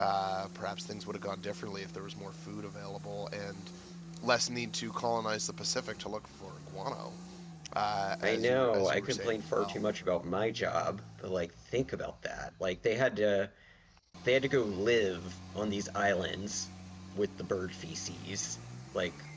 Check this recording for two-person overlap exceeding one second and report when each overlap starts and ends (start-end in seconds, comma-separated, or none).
8.2-9.8